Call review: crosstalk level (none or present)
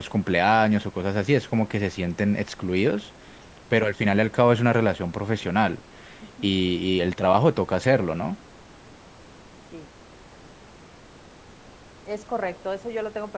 none